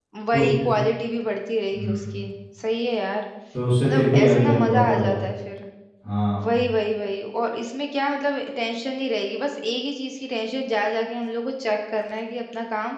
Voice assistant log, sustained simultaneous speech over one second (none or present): present